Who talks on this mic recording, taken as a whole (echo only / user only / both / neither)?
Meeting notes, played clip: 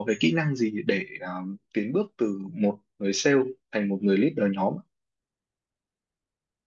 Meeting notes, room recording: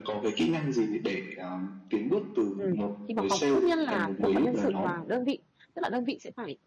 both